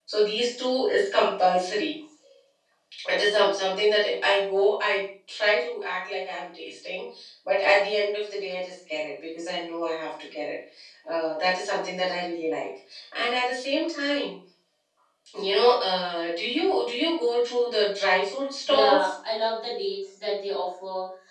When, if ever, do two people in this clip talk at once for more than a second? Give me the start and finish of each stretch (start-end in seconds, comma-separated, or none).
none